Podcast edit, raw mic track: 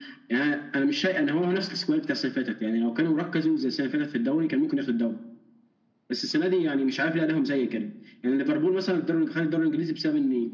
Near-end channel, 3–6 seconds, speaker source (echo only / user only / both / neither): echo only